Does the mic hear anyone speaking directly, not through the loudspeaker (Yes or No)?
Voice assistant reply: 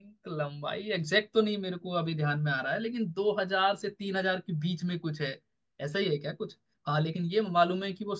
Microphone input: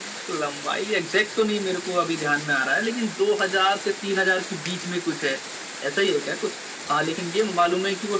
No